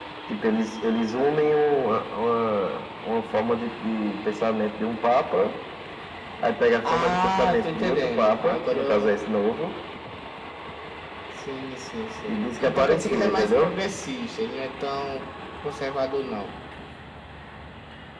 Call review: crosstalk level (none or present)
present